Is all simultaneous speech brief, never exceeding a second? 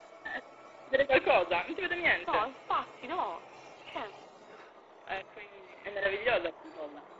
Yes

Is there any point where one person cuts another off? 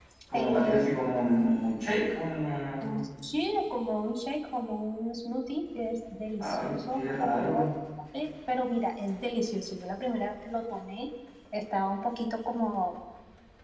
Yes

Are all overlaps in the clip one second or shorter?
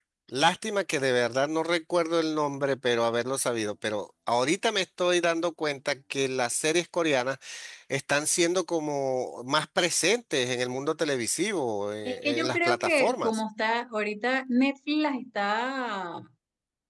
No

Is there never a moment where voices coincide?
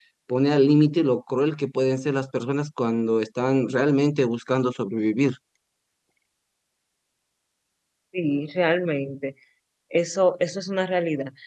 Yes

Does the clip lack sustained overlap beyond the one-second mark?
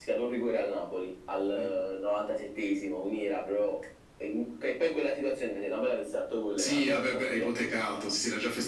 No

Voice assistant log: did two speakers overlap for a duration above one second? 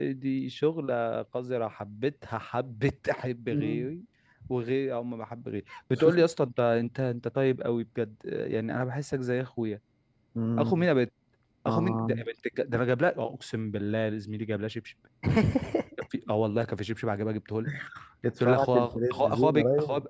Yes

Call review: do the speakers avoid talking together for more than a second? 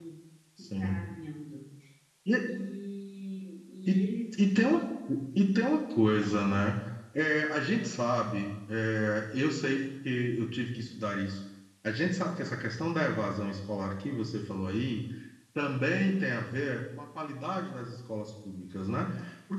Yes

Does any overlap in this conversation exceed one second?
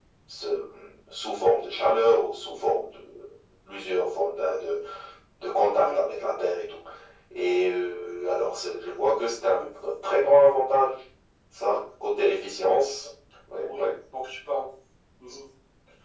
No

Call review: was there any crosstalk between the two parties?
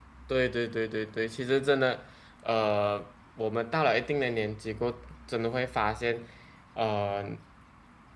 No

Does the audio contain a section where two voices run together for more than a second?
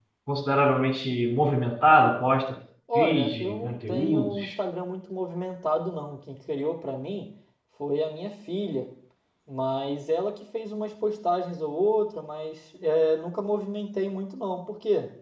Yes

